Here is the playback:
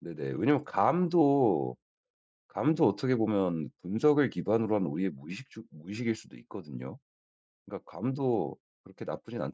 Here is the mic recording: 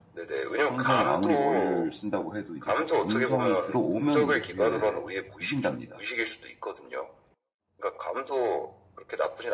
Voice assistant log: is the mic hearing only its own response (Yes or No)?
No